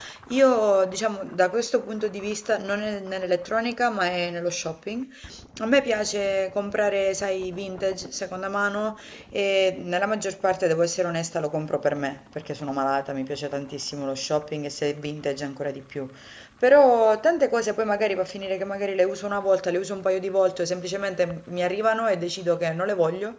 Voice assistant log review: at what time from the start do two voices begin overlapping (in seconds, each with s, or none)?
none